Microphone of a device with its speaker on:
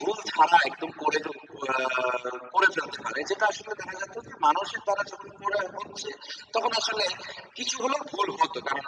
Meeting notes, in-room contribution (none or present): none